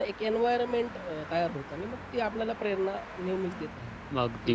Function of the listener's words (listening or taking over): taking over